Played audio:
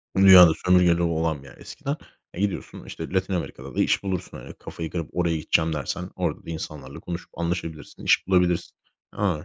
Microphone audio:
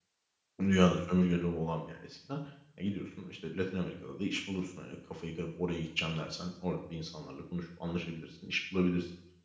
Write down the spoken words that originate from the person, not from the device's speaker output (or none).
none